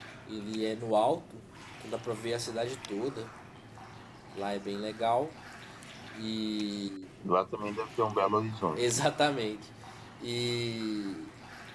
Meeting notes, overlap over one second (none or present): none